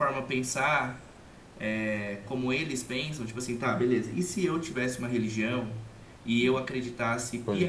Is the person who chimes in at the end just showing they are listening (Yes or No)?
Yes